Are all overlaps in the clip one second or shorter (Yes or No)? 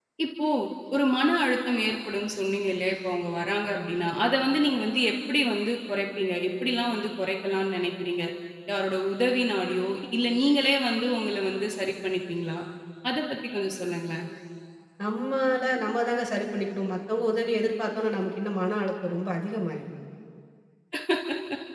Yes